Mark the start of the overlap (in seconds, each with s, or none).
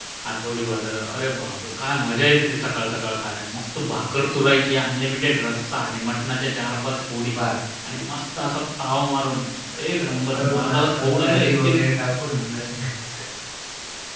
10.0 s